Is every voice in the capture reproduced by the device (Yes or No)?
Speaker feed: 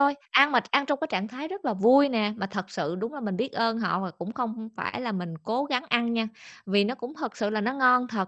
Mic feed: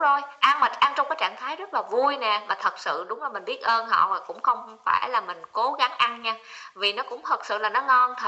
Yes